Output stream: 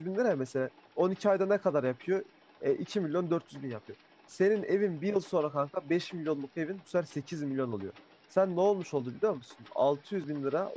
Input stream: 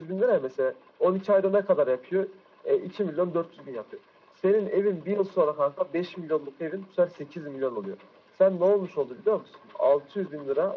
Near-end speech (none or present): none